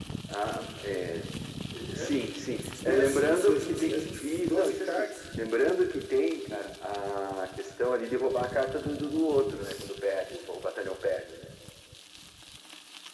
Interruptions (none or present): present